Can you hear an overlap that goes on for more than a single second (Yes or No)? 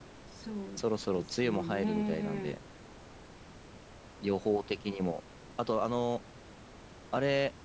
Yes